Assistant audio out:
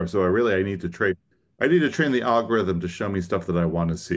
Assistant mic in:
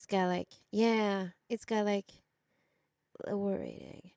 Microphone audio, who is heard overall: user only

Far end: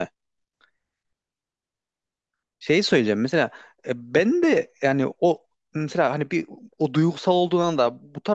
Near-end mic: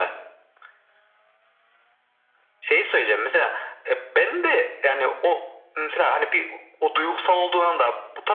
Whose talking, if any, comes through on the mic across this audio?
echo only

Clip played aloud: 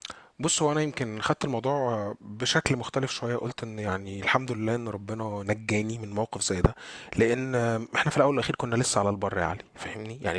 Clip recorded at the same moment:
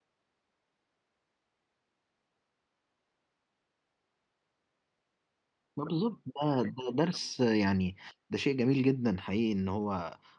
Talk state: user only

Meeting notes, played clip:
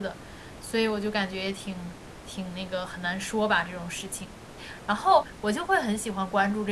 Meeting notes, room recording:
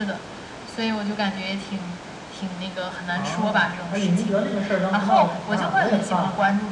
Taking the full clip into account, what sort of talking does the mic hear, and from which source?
both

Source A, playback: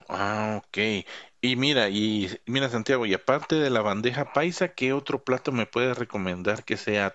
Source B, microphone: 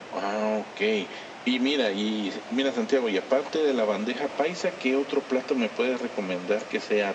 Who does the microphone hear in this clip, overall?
echo only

